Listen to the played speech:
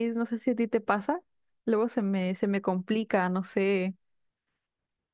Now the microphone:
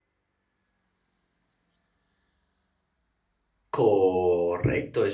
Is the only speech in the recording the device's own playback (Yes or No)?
No